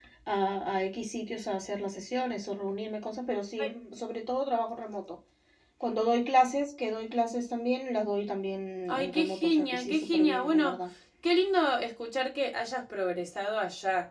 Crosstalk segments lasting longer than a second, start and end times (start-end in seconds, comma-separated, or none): 8.9-10.8